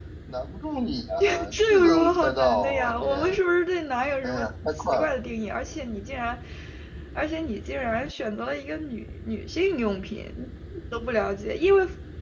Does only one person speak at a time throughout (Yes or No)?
No